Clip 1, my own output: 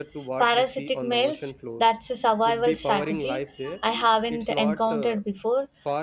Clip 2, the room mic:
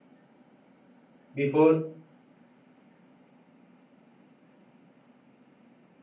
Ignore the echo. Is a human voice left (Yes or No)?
Yes